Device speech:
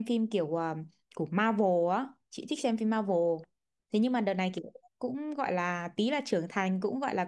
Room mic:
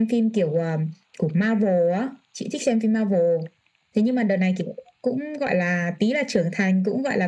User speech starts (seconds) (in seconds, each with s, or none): none